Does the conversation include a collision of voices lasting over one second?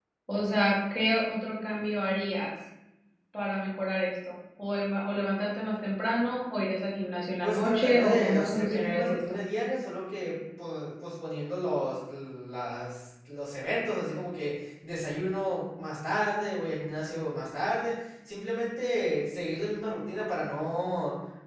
Yes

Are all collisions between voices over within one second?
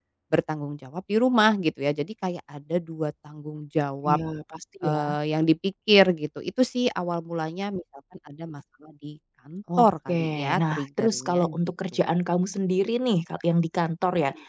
No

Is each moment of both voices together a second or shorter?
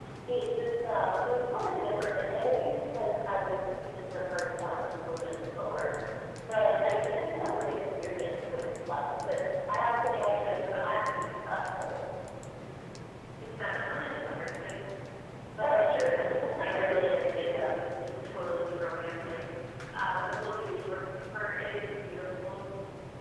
No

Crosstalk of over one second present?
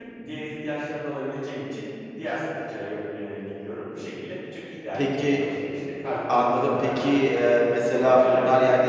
Yes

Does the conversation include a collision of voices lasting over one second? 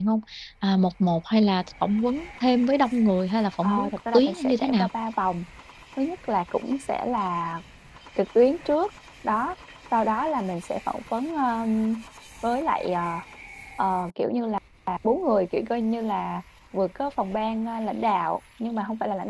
Yes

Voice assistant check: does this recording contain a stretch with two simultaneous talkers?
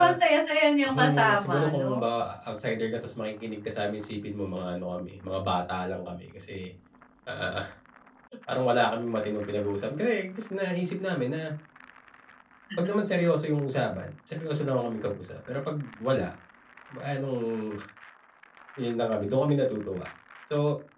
Yes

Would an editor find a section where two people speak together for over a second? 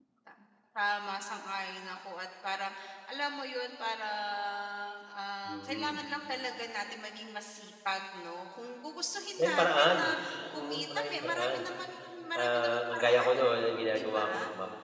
Yes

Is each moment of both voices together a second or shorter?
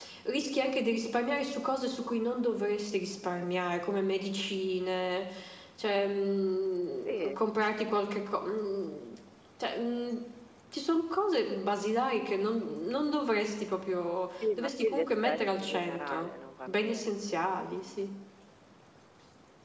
No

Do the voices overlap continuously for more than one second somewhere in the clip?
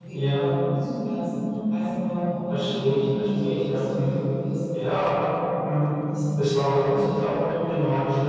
Yes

